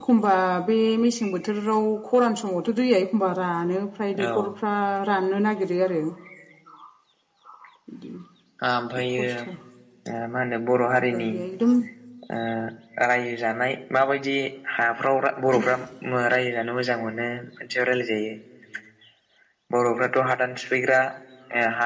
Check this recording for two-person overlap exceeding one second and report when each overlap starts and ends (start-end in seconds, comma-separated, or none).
none